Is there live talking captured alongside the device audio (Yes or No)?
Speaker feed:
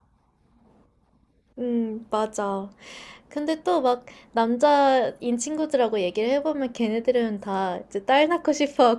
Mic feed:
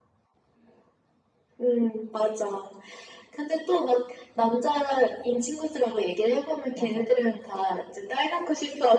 Yes